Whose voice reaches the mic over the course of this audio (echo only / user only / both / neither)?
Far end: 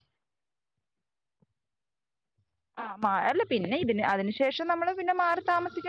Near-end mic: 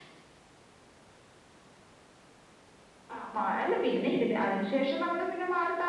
echo only